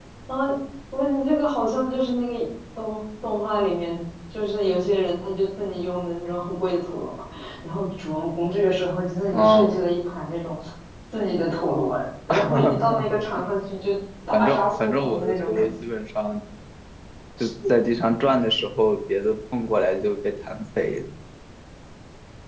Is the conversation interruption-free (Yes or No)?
No